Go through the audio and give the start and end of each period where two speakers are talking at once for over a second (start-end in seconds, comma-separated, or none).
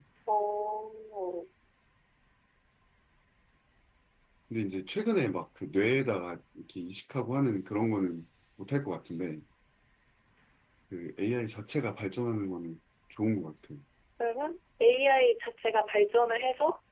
none